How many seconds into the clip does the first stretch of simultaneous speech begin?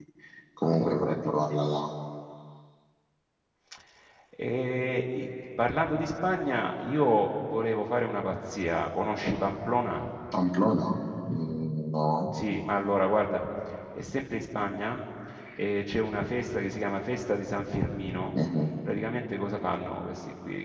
none

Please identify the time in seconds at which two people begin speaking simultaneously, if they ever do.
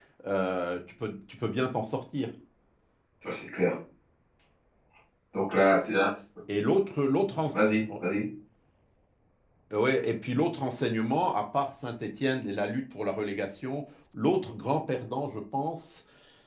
none

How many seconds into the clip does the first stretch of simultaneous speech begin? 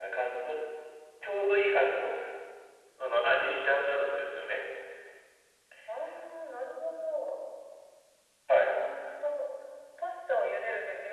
none

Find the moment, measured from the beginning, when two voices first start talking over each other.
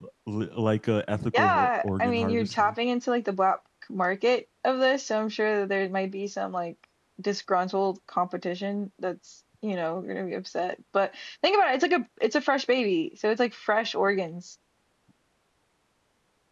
1 s

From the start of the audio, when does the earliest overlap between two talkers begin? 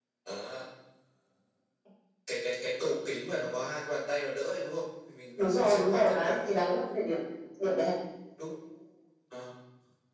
5 s

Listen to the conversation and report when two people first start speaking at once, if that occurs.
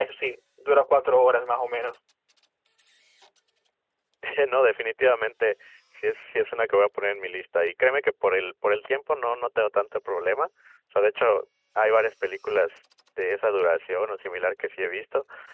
none

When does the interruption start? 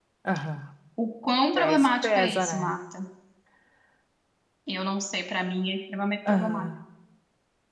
2 s

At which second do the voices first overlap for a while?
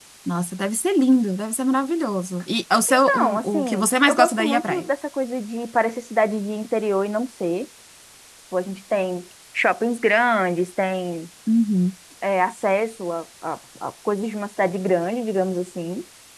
3 s

